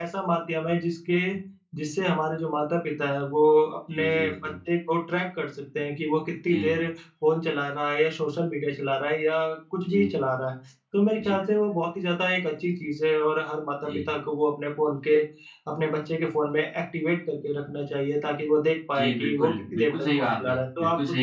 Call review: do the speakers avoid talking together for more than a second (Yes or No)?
No